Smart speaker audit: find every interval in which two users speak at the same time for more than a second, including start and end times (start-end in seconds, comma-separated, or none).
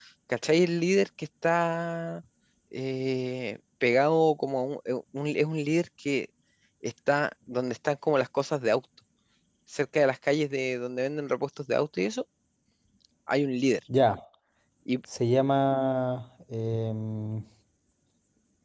none